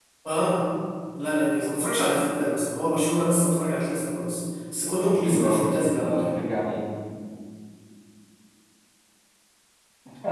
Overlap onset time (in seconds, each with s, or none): 5.0 s